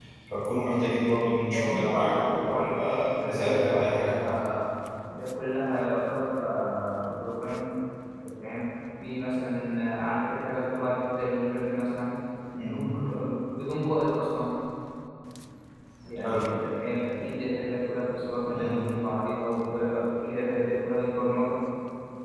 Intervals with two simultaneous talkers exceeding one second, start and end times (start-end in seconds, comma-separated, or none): 1.5-4.1